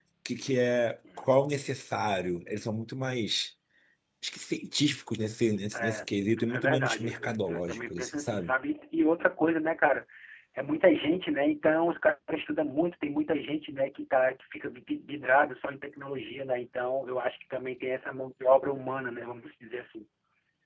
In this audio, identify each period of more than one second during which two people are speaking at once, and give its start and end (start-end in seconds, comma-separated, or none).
6.5-8.5